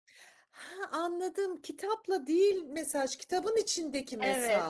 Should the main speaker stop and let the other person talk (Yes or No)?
Yes